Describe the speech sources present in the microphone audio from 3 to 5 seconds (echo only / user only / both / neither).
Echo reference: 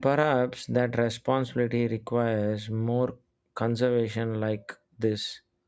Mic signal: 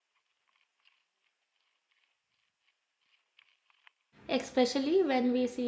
user only